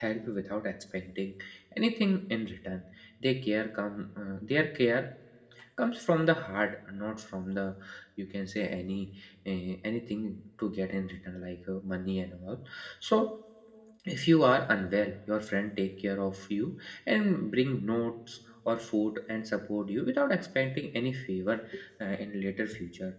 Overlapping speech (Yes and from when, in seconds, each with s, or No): No